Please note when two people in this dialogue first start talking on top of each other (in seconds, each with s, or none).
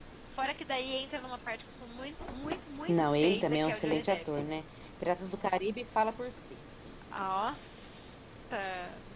2.9 s